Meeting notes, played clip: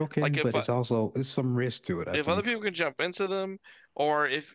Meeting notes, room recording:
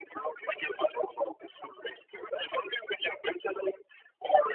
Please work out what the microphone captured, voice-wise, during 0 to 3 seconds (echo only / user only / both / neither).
echo only